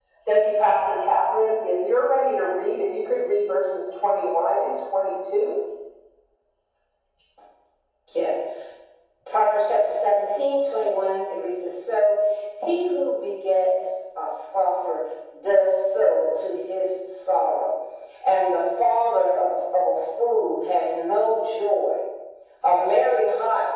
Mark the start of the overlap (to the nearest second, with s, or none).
none